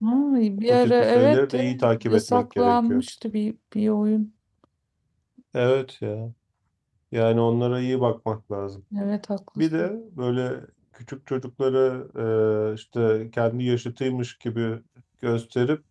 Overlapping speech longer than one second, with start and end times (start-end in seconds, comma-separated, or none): 0.7-3.0